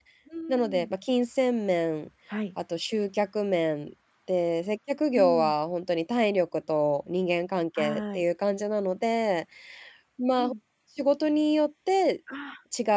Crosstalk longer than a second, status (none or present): none